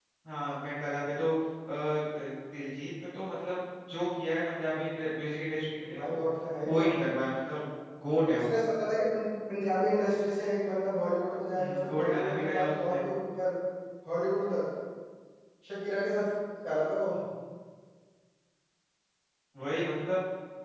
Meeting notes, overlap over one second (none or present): present